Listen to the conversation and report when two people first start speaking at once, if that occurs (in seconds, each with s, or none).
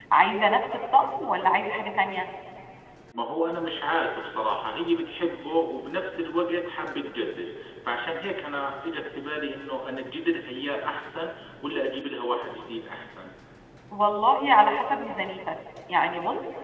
none